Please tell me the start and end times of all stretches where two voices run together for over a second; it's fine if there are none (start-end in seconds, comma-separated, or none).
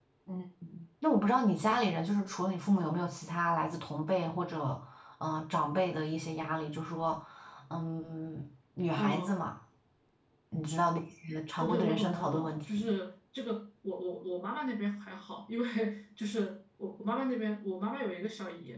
11.6-12.9